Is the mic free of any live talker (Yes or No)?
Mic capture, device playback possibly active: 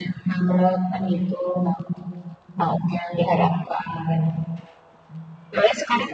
Yes